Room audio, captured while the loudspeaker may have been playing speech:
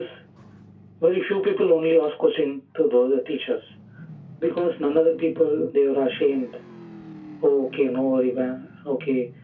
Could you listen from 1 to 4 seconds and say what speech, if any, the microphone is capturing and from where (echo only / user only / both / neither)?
echo only